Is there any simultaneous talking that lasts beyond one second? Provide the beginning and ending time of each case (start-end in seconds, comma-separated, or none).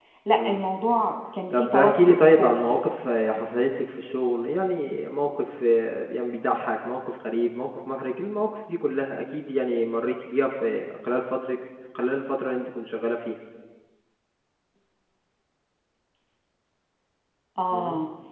1.5-2.8